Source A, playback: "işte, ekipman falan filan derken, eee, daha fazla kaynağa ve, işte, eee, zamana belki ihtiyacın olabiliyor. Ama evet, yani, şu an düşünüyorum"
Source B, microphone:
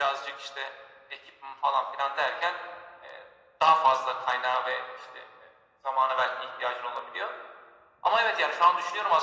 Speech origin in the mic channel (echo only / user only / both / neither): echo only